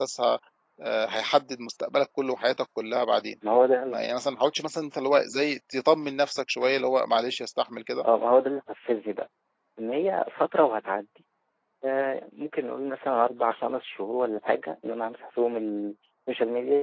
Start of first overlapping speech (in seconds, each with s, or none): none